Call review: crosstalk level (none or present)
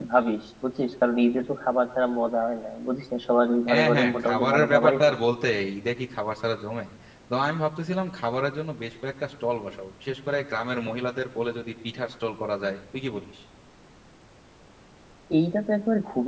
present